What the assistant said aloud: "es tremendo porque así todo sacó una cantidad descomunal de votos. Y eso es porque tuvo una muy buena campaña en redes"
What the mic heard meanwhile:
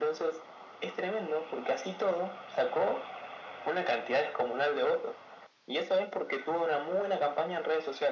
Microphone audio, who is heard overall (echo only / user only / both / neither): echo only